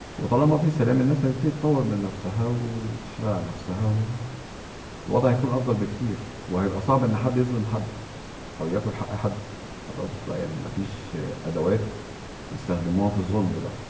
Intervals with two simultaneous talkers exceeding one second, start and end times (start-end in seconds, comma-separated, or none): none